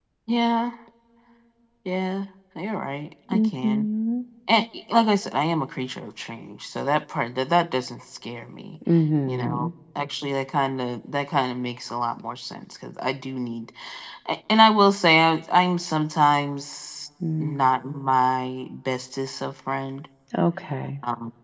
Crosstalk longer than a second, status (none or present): none